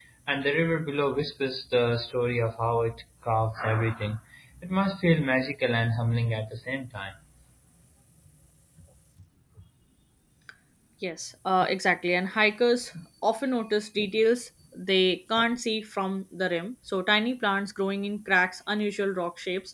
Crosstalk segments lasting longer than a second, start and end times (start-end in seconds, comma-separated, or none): none